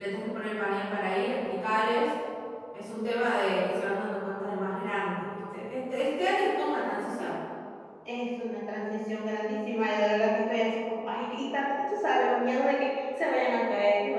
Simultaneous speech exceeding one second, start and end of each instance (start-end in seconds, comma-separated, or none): none